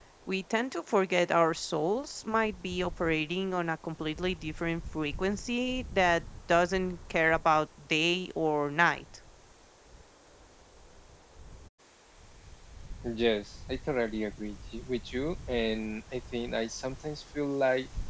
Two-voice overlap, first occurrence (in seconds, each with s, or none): none